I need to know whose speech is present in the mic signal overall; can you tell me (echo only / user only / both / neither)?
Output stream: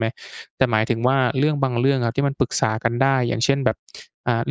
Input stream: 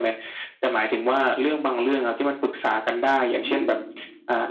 both